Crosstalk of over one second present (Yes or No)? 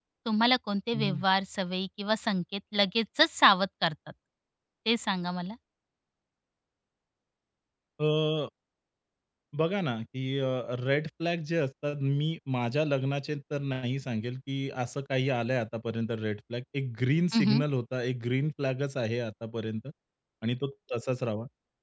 No